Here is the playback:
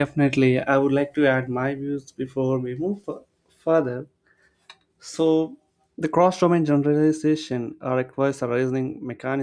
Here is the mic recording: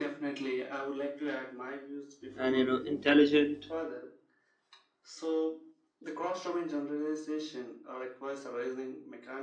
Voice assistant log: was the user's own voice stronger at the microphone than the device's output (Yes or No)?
Yes